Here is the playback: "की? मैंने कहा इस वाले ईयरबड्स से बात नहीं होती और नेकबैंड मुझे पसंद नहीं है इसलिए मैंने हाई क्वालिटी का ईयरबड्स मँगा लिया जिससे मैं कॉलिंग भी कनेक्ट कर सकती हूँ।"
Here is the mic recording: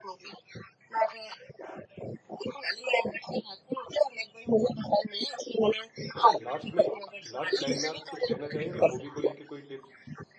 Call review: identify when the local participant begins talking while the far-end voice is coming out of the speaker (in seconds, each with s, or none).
6.2 s